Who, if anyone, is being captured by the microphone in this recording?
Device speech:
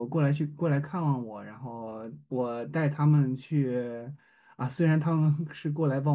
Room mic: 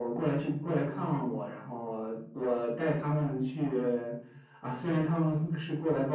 echo only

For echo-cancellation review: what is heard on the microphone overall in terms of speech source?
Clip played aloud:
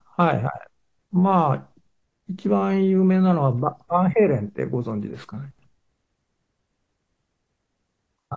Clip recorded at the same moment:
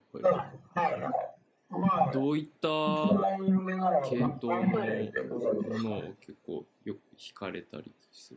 both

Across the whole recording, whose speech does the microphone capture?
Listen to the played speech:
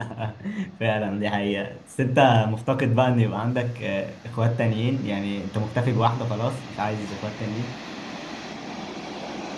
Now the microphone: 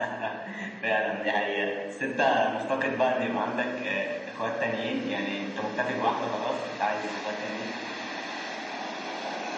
echo only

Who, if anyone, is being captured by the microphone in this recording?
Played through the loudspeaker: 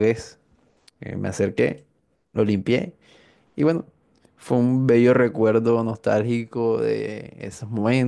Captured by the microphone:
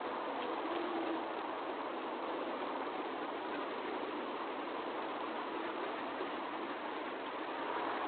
neither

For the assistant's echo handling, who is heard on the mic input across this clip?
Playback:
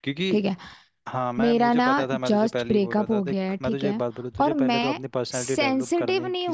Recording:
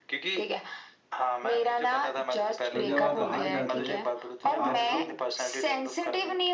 both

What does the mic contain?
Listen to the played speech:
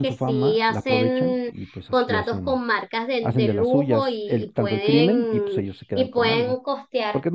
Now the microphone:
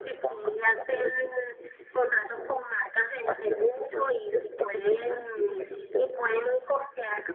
echo only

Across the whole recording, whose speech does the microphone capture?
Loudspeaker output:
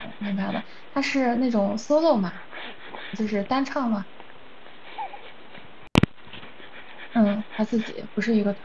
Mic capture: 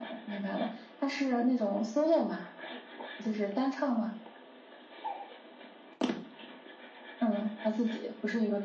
echo only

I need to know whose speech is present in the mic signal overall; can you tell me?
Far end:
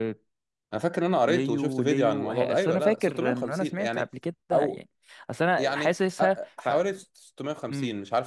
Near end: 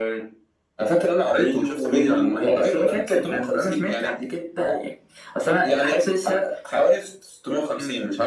echo only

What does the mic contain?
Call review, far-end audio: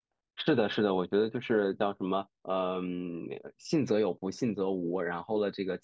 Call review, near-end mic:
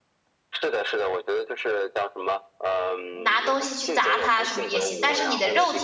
both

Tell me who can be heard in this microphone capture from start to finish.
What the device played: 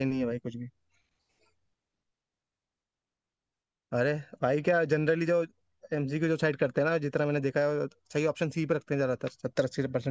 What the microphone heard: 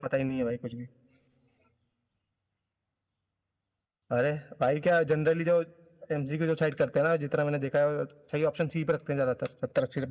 echo only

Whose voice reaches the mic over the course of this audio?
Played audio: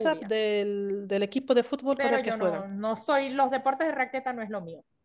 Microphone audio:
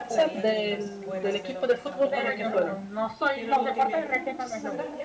both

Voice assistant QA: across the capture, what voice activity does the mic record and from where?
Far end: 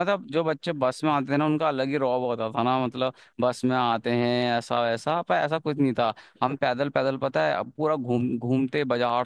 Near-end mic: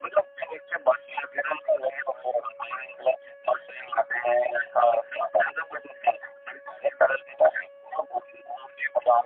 echo only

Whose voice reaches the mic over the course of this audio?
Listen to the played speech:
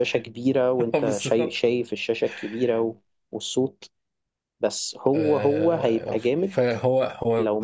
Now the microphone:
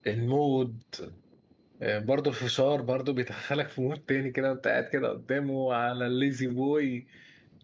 user only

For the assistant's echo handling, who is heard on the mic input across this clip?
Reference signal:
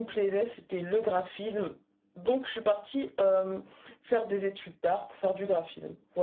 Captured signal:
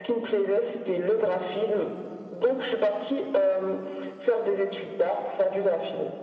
echo only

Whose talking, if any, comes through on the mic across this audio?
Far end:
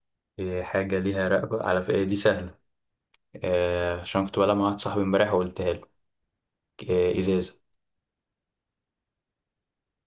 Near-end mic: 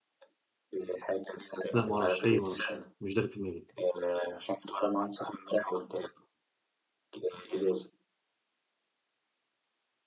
both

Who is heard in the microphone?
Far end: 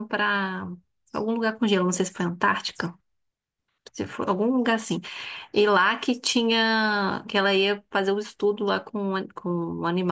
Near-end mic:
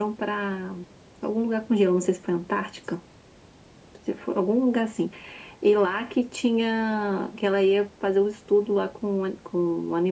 echo only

